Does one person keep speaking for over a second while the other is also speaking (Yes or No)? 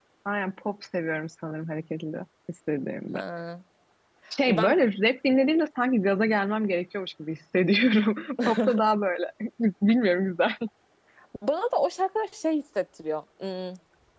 No